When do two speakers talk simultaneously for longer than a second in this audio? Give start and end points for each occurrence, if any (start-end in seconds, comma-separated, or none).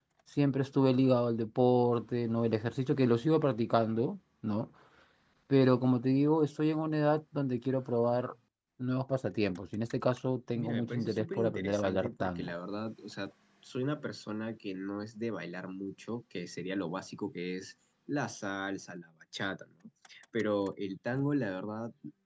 10.6-12.5